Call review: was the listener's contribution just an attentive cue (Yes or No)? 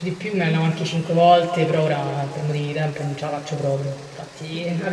Yes